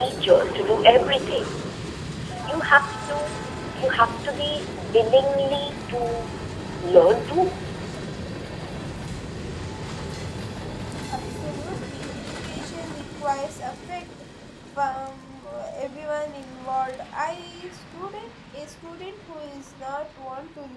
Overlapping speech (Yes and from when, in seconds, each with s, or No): No